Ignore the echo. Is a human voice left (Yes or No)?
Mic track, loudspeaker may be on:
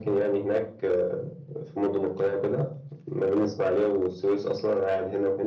No